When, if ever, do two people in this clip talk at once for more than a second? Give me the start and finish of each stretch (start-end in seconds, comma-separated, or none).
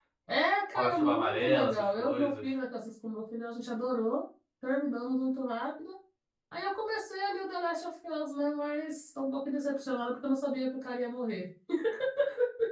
0.7-2.4